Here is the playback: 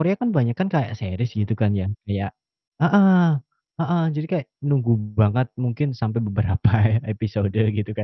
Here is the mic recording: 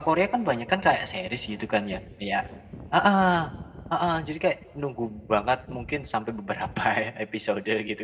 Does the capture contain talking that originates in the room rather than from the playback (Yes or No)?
No